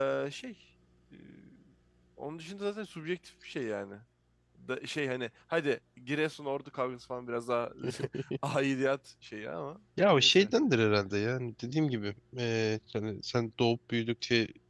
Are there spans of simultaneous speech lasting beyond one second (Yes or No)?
No